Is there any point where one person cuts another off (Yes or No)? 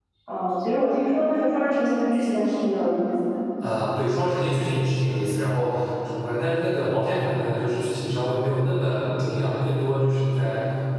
No